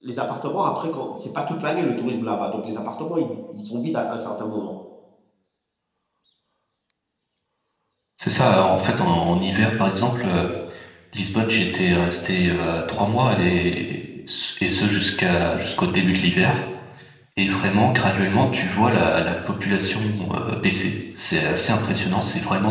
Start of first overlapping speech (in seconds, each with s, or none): none